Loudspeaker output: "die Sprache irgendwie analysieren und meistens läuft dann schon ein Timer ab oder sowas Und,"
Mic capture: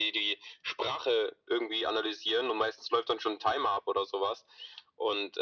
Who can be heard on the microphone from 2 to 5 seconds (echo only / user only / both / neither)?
echo only